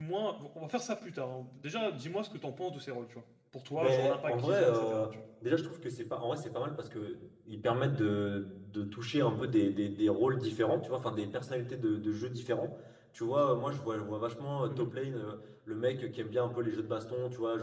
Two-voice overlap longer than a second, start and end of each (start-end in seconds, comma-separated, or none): 3.8-5.1